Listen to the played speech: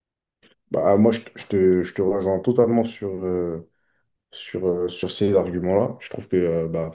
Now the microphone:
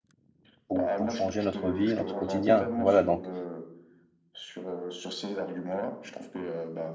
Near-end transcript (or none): pour, pour changer notre vie, notre quotidien. Voilà, donc,